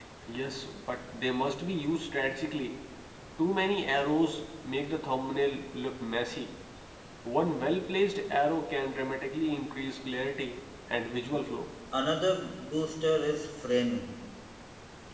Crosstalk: none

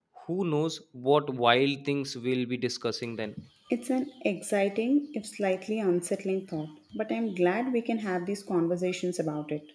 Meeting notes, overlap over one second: none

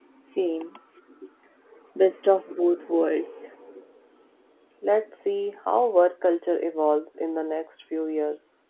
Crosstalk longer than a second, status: none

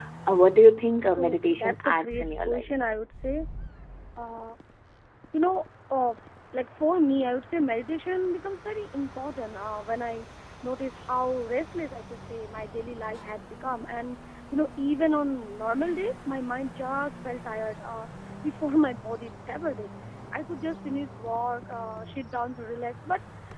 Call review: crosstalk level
present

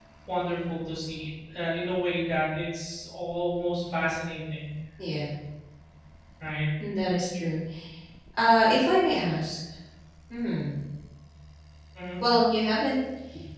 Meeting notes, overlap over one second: none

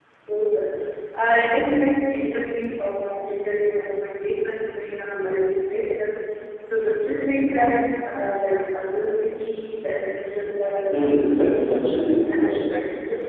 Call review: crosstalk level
present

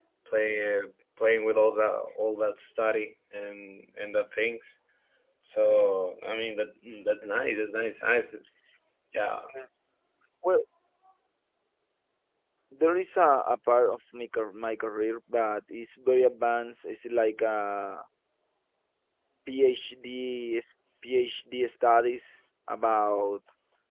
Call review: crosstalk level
none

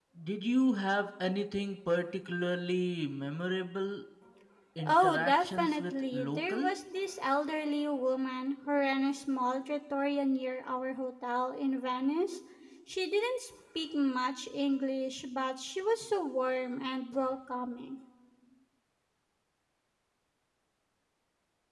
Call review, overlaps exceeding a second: present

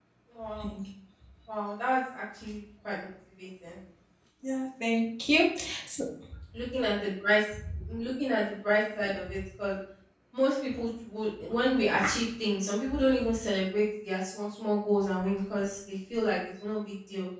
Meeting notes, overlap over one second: none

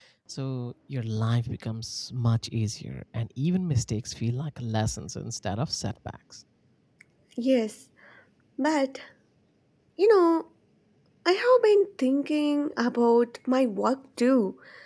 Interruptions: none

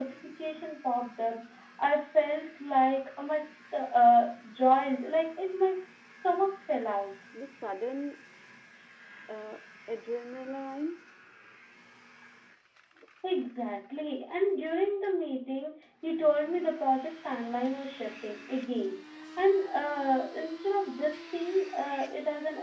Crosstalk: none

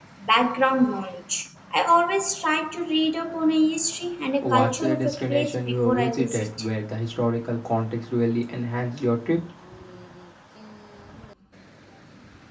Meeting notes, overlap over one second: present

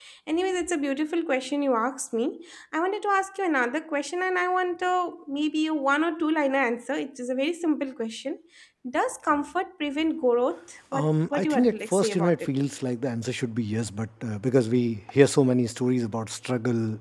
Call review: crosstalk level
present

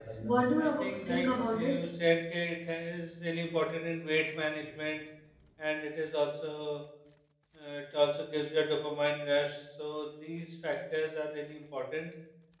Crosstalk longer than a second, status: present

